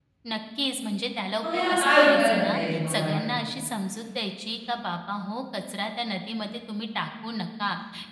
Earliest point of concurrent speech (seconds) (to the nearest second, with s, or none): 1 s